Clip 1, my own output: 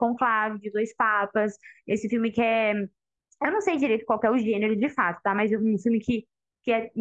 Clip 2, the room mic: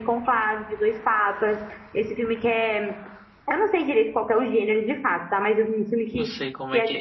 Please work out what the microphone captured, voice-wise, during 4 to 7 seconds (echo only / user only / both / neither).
both